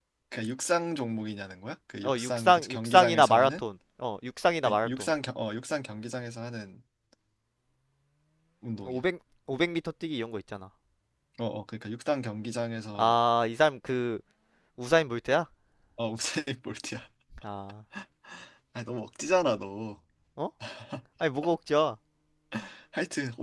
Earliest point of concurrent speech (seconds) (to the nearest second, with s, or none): 2 s